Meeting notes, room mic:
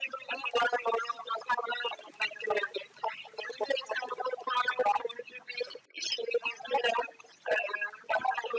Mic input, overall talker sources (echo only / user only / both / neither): echo only